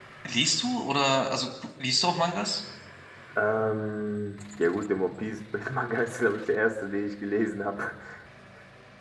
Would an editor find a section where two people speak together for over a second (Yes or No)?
No